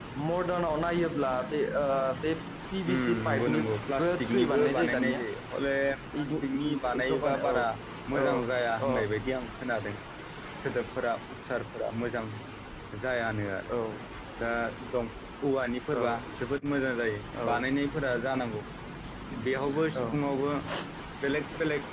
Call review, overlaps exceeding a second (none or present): present